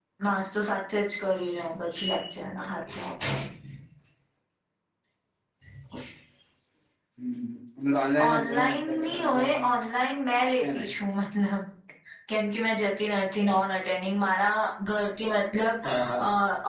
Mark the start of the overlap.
8.3 s

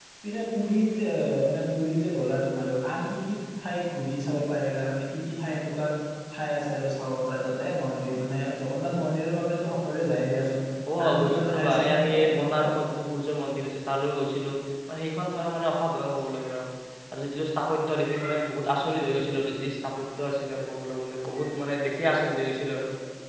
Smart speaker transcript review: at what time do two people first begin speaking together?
11.1 s

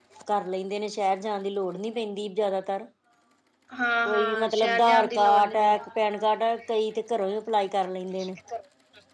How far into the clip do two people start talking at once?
4.0 s

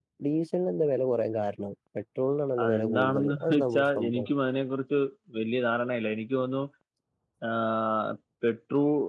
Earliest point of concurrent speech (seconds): 2.6 s

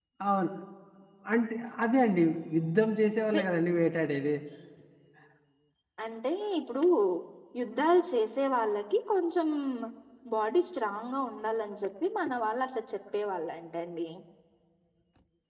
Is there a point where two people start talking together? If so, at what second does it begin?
none

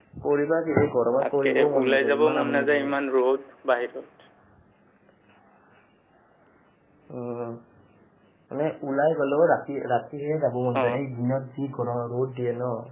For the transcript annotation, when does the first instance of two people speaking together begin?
1.2 s

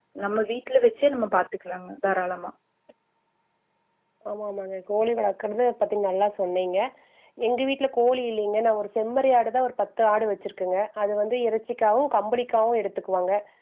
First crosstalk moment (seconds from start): none

